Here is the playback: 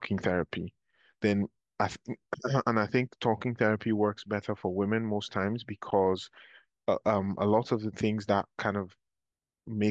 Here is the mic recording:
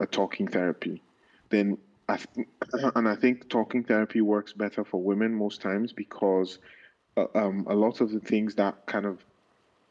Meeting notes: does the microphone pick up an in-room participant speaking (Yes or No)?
No